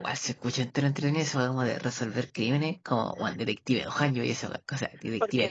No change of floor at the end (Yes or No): No